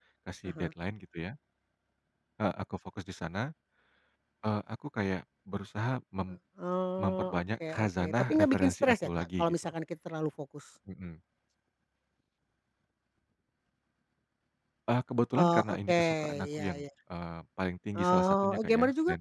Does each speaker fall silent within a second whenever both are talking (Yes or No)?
No